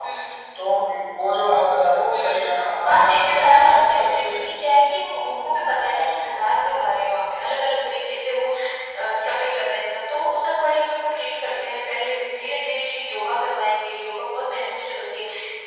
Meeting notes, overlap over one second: present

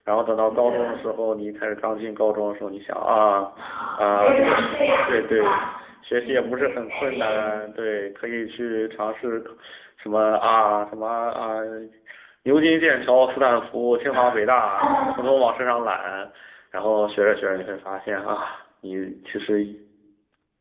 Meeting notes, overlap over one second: present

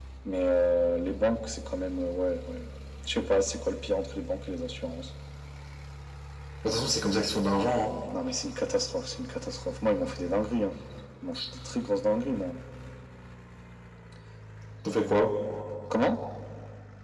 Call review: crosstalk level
none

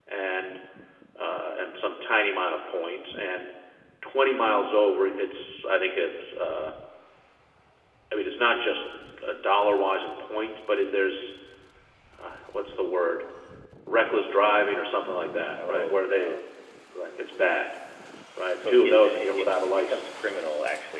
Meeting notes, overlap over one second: present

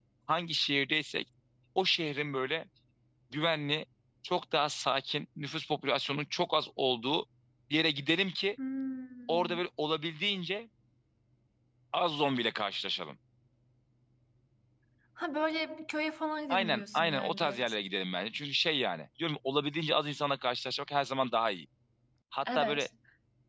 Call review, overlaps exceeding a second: present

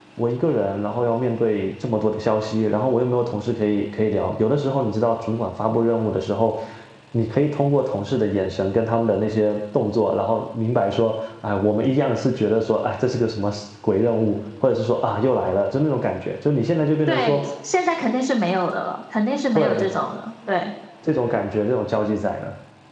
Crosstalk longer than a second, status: none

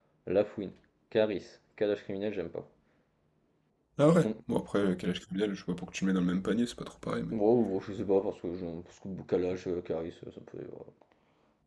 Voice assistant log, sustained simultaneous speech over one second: none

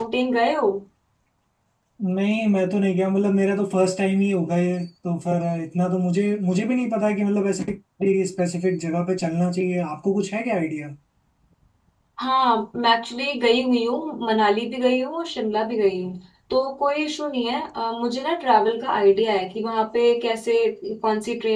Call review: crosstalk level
none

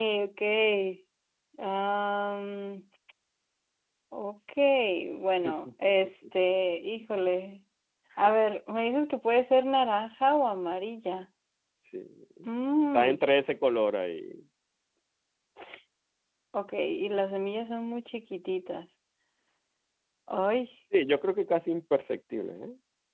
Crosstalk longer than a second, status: none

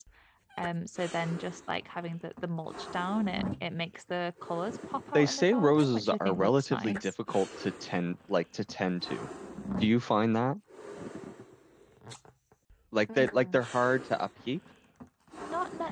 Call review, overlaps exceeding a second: present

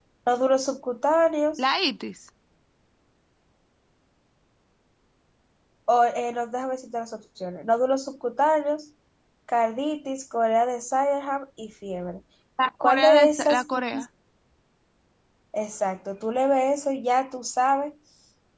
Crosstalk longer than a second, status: present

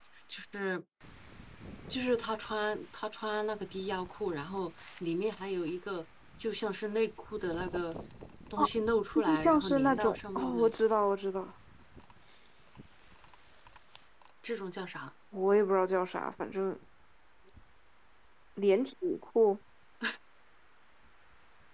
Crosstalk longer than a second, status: present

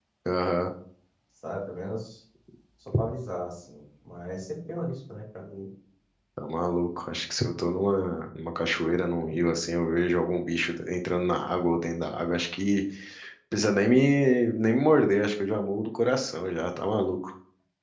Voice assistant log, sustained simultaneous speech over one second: none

